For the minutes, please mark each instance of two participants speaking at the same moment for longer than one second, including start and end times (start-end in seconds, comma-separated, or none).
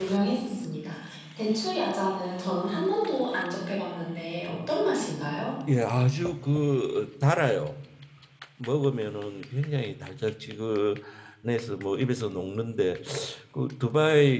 none